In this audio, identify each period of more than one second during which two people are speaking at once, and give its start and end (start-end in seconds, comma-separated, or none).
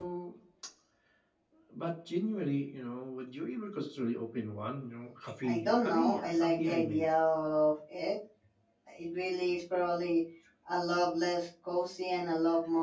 5.4-7.0